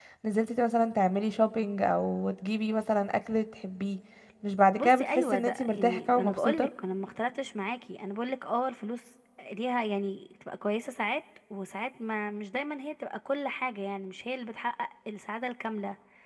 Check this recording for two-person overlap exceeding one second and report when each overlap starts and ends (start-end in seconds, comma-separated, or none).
4.8-6.7